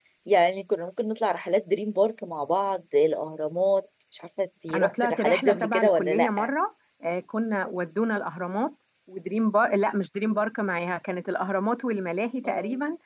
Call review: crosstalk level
present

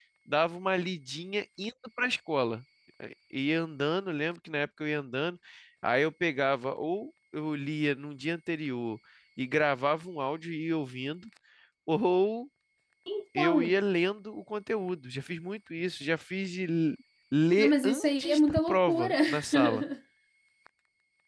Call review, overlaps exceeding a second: present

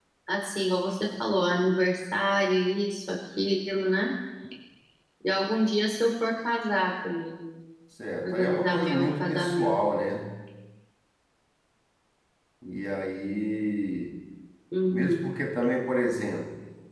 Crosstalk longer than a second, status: present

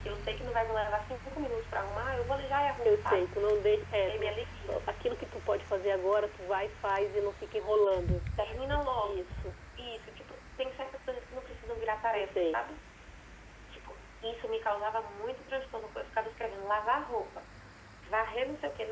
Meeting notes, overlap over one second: none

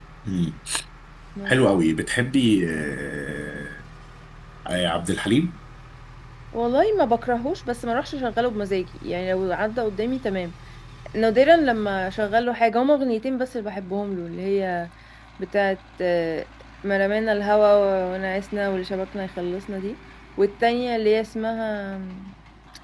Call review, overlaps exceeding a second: none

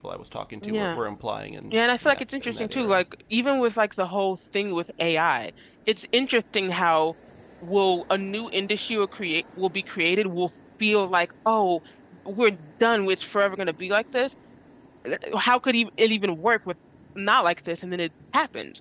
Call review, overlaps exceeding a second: present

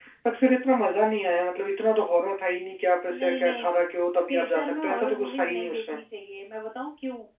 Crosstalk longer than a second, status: present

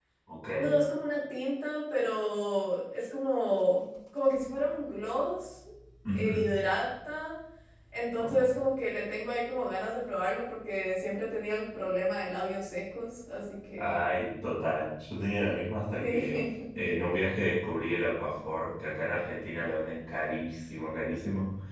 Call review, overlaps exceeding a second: none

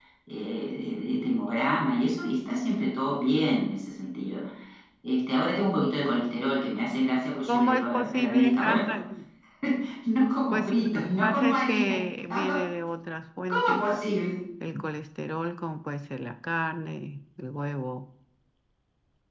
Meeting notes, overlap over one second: present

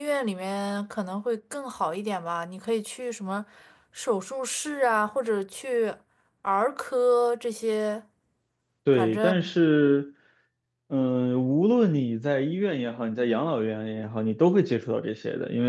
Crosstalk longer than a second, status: none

